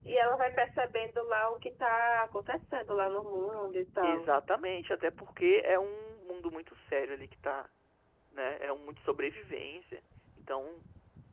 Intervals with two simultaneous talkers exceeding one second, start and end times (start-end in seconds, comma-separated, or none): none